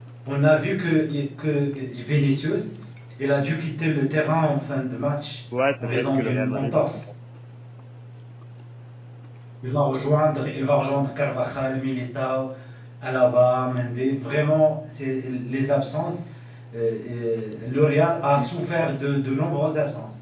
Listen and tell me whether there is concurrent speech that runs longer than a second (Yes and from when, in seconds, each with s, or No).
Yes, from 5.8 s